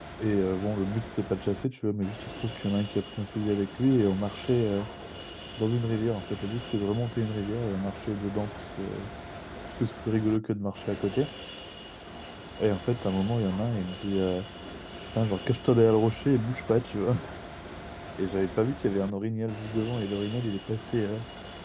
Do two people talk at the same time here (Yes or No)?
No